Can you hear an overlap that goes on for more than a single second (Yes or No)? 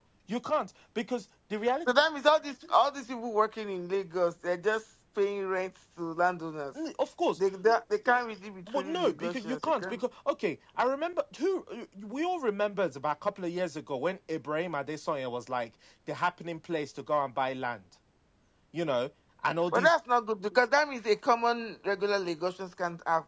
Yes